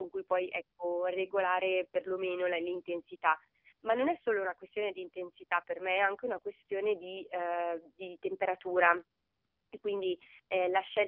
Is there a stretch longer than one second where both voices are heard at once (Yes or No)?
No